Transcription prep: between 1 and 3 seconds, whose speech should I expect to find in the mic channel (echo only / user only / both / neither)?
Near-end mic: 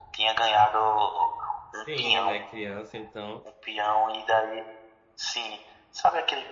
both